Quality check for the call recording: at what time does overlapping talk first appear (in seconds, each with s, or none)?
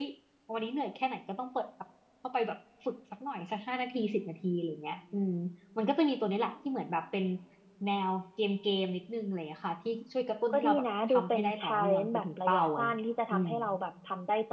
10.5 s